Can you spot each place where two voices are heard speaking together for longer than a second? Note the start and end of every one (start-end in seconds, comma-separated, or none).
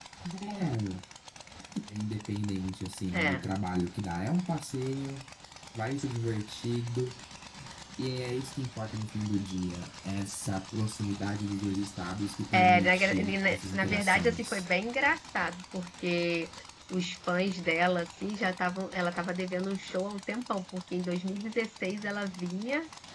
12.5-14.7